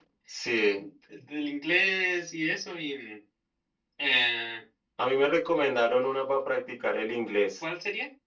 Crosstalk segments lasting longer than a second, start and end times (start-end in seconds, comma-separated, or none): none